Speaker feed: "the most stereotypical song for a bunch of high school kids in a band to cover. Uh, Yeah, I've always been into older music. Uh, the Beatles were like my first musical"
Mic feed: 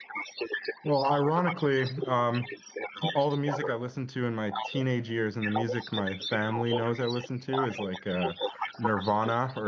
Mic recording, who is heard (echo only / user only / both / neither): both